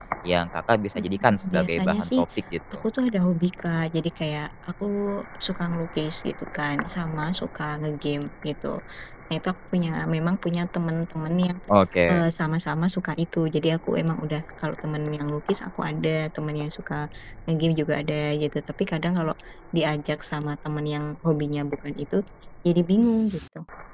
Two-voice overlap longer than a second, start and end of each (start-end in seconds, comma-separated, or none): 1.0-2.2